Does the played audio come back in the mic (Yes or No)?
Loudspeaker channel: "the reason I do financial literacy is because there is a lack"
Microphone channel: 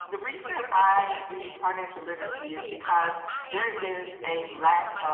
Yes